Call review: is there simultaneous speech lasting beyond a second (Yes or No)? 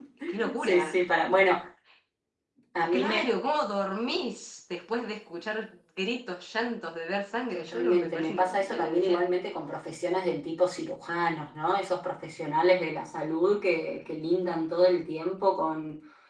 Yes